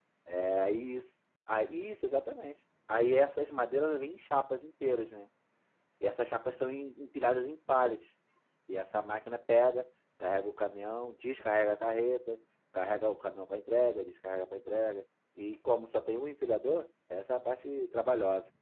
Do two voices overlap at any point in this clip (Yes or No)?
No